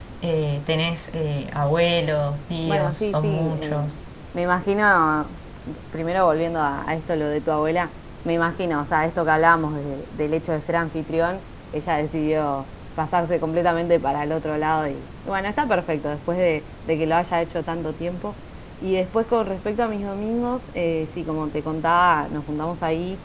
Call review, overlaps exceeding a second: present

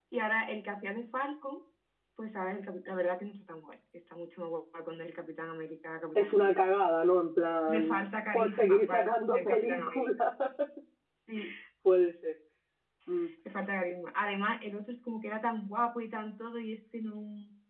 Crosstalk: present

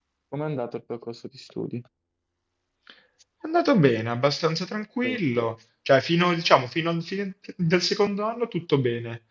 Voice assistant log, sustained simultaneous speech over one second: none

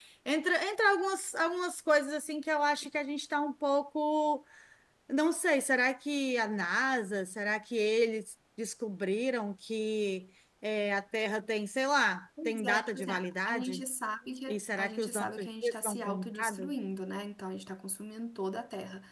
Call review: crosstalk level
present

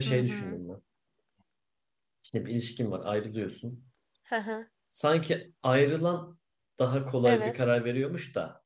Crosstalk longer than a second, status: none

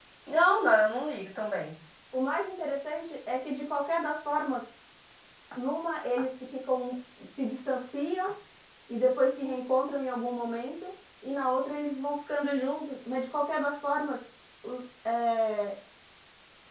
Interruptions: none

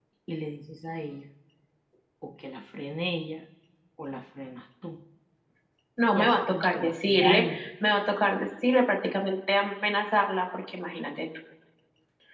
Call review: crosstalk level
present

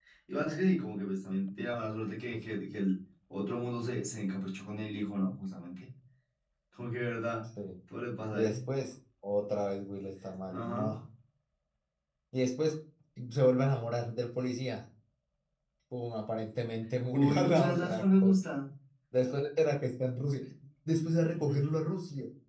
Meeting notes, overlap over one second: present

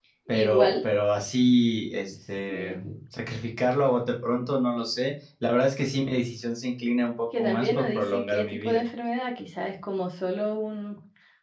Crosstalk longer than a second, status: present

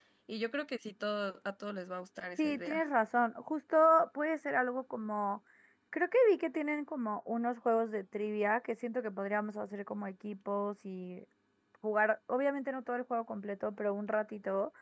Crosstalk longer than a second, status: none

